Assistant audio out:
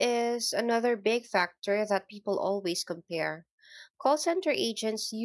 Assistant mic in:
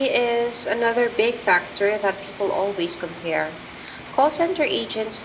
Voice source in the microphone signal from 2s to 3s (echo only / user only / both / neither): echo only